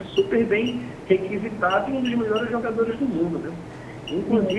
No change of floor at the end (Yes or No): Yes